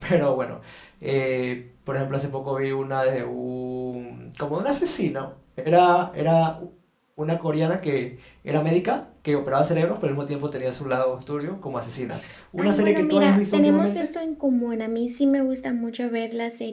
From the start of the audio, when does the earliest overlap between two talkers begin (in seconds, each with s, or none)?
12.6 s